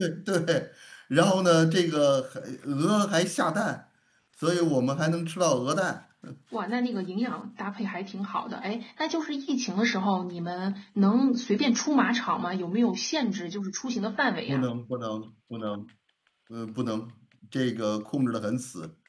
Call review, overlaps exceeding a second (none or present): none